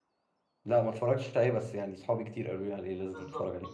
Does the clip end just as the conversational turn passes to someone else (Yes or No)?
Yes